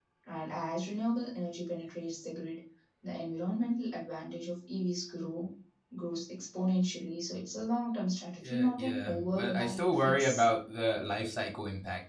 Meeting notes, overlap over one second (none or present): present